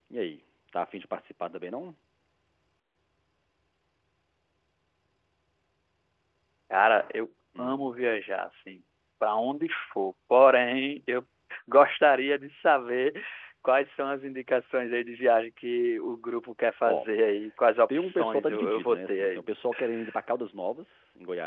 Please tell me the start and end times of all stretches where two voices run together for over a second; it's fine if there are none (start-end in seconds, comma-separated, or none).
17.9-19.5